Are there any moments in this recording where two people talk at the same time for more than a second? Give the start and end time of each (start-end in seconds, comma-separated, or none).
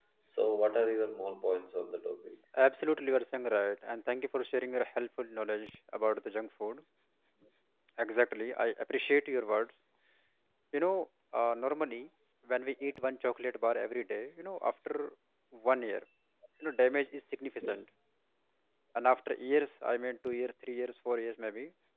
none